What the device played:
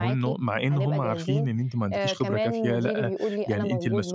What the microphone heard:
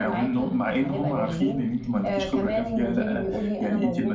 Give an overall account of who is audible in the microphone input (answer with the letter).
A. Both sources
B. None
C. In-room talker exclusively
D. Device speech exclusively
D